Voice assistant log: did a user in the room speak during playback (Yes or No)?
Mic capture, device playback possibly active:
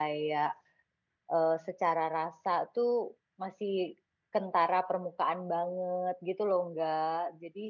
Yes